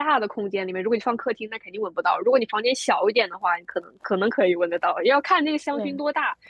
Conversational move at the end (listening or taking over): listening